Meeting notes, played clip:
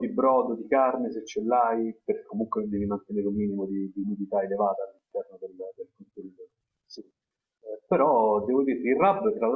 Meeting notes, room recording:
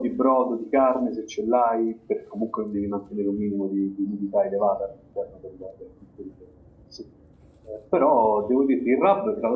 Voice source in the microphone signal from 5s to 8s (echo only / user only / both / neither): echo only